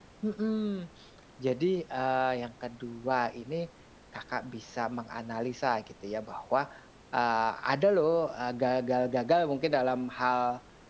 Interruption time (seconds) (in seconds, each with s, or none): none